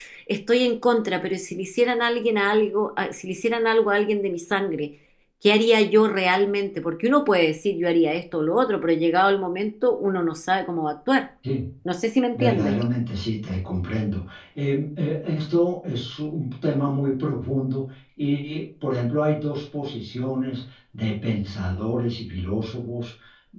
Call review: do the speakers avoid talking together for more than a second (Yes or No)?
Yes